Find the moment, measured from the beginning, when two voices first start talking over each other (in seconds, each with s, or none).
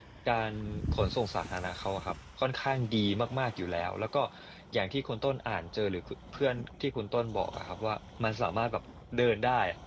none